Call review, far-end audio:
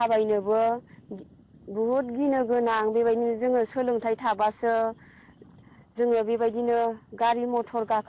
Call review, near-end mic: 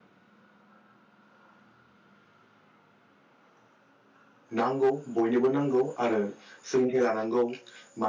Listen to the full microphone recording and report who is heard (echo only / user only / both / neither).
user only